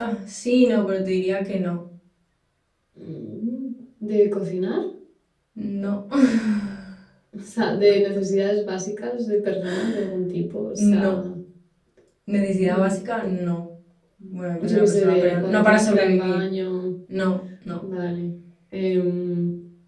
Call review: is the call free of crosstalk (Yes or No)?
No